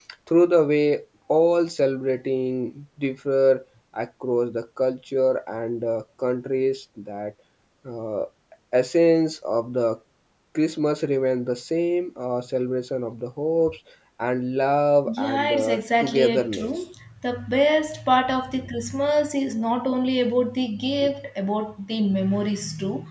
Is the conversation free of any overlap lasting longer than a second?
No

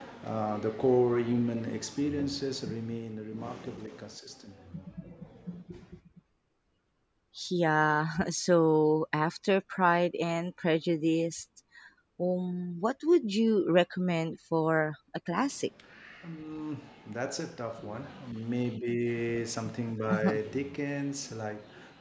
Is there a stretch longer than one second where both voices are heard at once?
No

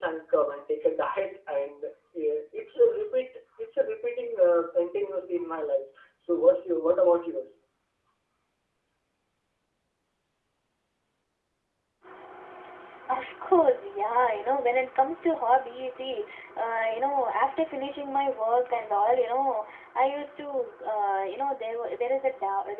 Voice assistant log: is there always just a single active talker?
Yes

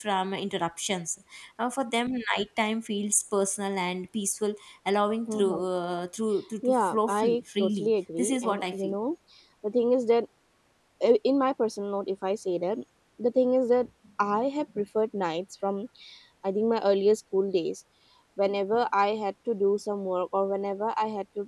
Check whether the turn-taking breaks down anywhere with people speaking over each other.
Yes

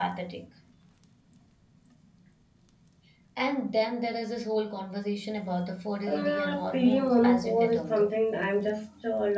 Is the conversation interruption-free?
No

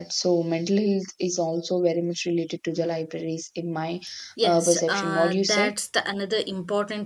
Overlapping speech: Yes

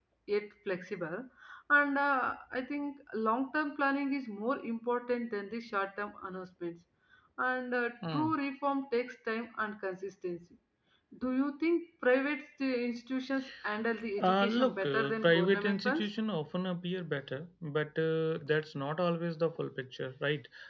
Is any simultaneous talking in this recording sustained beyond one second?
Yes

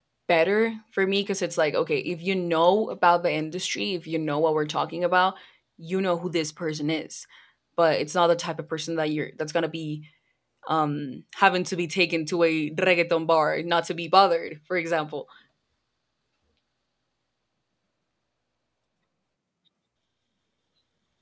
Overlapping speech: No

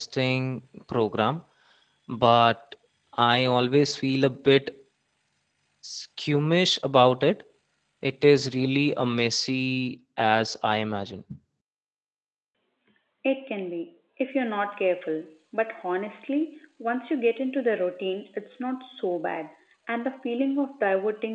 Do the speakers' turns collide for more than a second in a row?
No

